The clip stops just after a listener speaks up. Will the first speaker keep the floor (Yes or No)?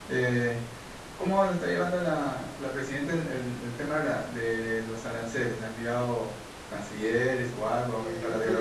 No